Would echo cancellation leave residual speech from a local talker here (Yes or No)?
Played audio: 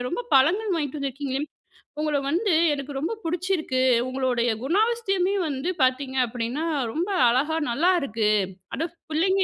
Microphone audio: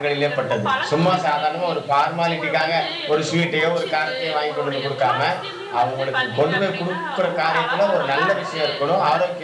Yes